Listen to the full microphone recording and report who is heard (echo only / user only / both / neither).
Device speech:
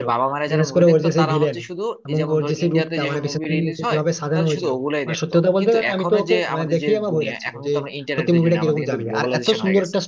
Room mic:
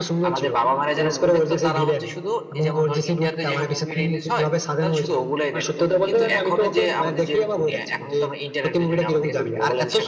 echo only